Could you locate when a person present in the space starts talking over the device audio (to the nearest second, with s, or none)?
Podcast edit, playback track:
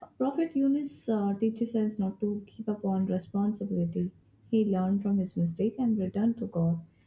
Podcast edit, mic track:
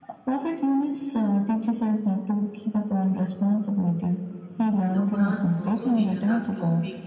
5 s